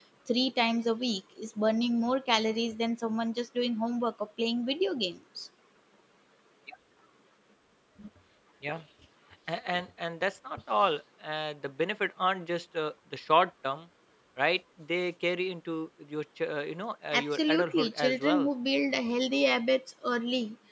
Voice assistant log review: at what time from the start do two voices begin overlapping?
17.1 s

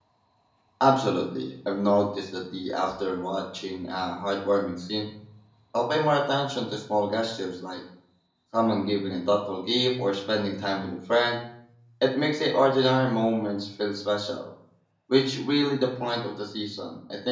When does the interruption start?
none

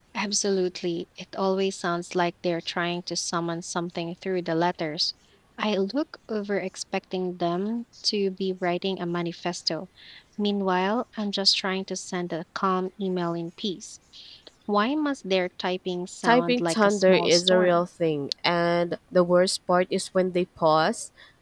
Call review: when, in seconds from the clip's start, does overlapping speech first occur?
16.2 s

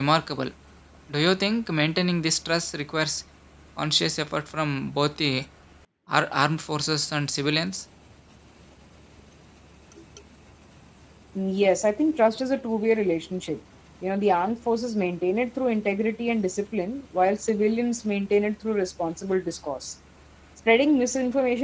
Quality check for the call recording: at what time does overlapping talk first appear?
none

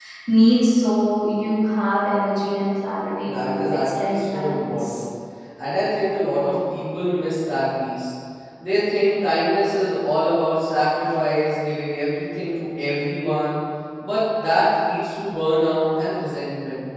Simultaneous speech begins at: 3.2 s

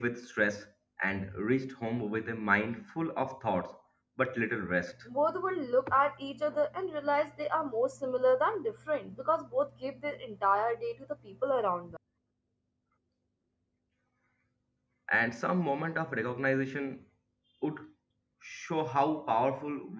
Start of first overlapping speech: none

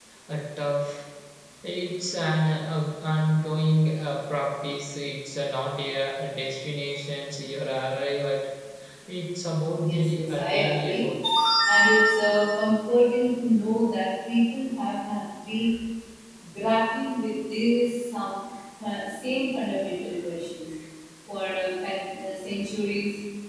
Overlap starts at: 9.8 s

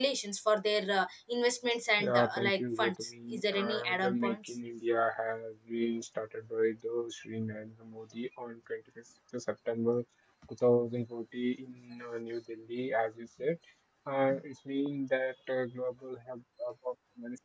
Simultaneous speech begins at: 2.0 s

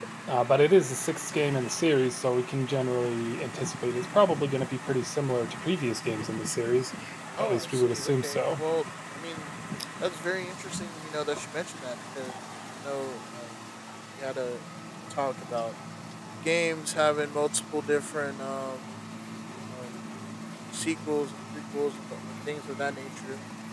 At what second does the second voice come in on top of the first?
7.4 s

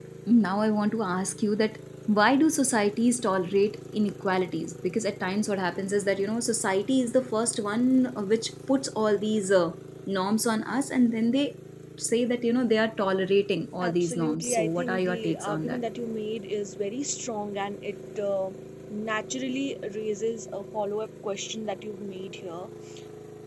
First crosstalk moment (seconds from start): 13.8 s

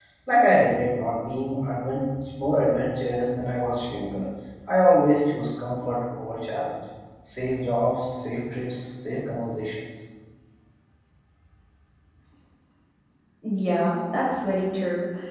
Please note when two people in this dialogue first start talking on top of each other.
none

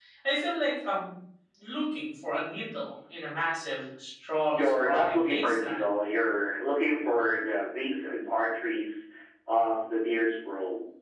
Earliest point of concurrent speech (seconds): 4.5 s

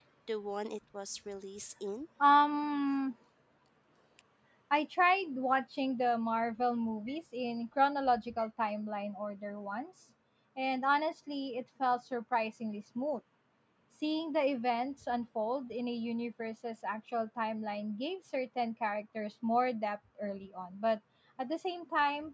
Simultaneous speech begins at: none

